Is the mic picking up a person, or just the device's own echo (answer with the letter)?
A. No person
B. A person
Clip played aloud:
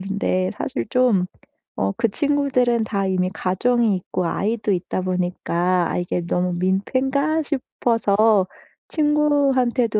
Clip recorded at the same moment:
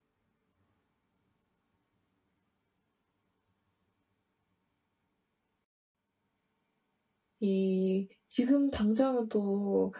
B